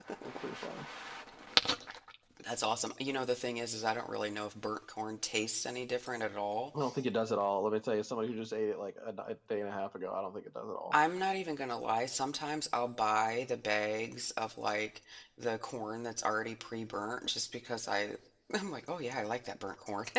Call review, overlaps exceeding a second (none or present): none